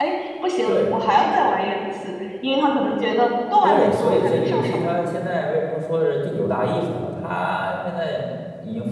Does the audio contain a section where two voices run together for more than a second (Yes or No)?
Yes